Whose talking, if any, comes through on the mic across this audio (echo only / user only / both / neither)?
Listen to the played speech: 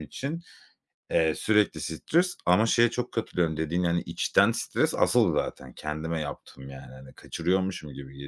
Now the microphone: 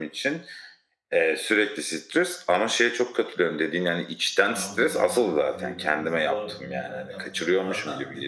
both